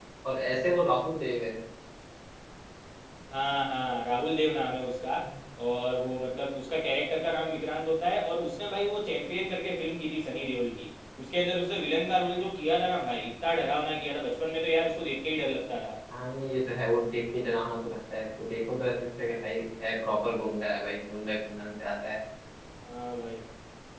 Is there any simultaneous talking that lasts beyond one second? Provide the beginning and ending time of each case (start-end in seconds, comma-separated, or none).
none